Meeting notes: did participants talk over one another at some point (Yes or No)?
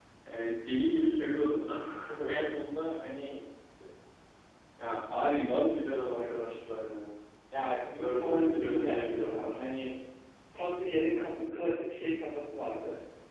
Yes